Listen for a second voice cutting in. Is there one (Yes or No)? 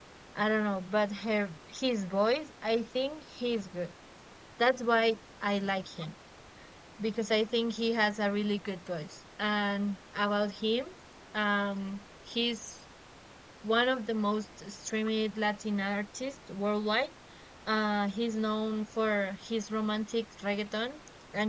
No